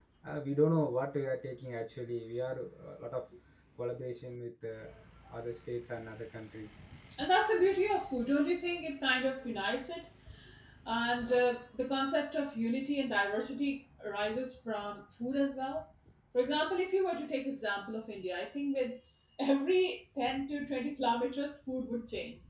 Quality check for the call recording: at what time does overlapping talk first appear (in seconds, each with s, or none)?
none